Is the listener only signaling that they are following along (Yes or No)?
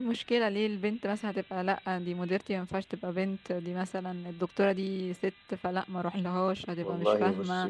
No